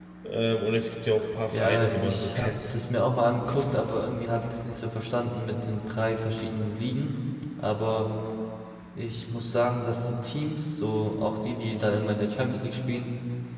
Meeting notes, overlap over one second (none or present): present